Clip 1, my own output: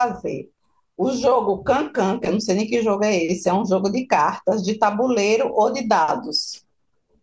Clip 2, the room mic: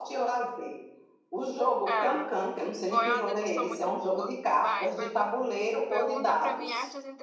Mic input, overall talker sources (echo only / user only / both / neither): both